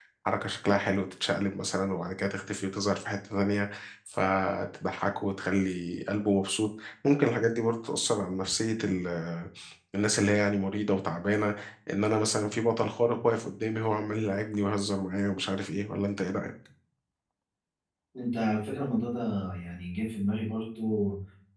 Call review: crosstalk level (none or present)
none